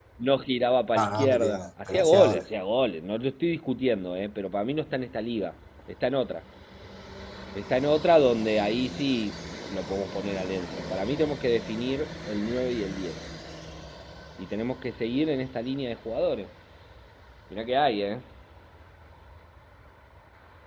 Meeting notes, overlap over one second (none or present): present